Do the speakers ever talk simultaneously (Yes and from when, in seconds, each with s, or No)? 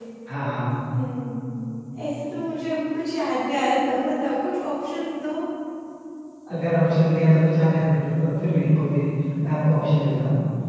No